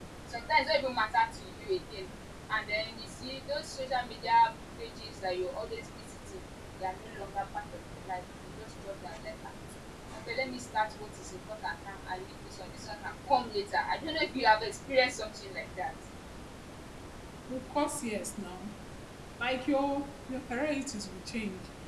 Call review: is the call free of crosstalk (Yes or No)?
Yes